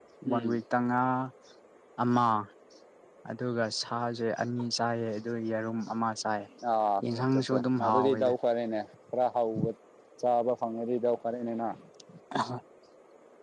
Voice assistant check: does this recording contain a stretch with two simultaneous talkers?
Yes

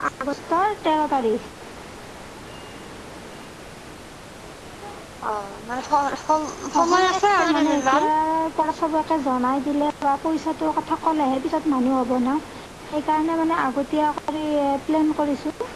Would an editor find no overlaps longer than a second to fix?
No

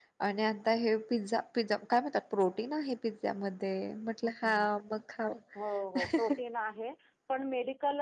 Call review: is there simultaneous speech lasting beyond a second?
No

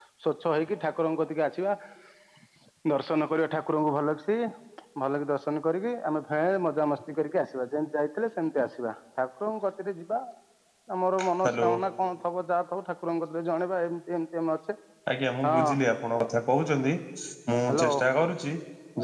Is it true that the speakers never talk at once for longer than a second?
Yes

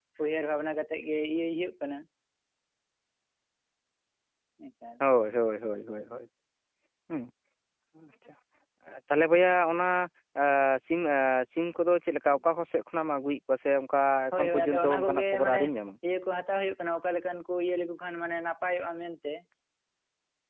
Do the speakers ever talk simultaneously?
Yes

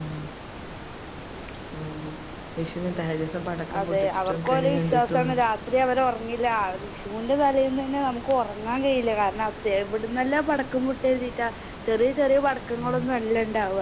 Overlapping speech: Yes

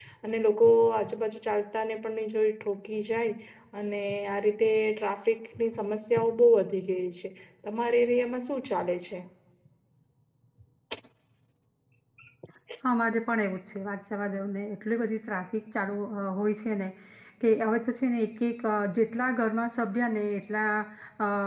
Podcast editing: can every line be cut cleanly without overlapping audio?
Yes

